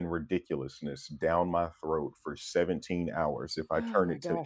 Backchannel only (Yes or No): No